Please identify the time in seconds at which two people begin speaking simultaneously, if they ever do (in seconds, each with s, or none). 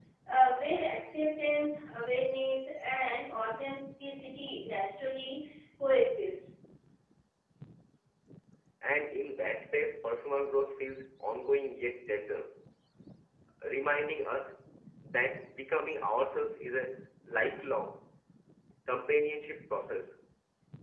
none